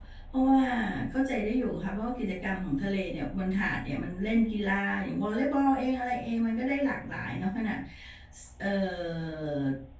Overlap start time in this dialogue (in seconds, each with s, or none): none